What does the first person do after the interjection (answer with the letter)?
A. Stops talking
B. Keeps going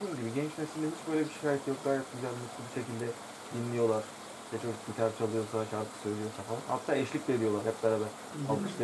B